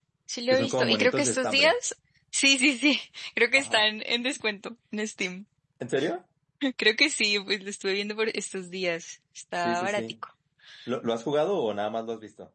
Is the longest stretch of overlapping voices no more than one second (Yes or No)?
No